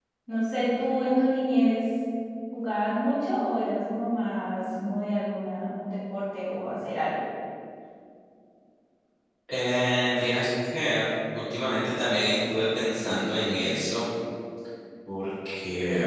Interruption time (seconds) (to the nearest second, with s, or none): none